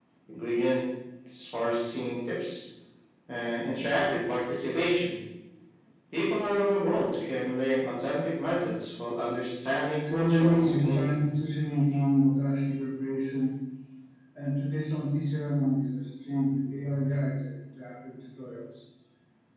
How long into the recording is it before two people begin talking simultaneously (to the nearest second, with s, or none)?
10 s